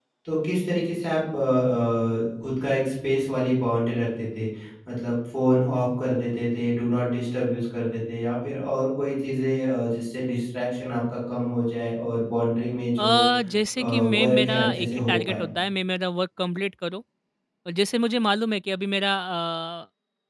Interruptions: present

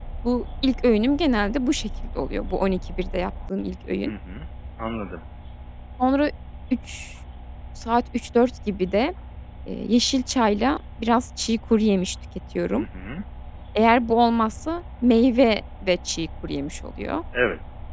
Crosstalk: none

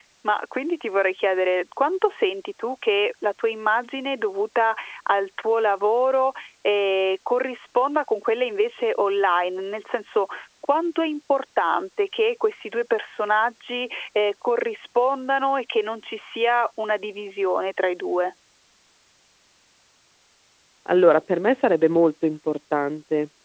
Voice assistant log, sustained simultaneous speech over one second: none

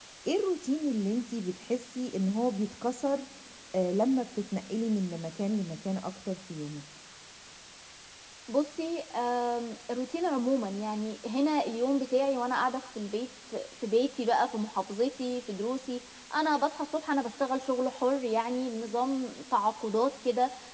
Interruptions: none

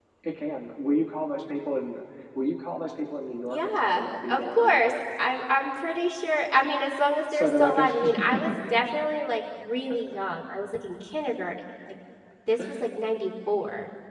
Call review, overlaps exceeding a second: present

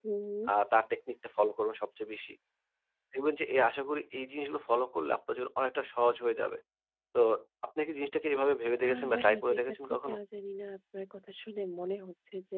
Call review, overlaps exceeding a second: present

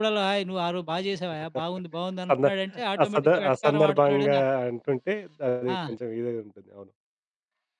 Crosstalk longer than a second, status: present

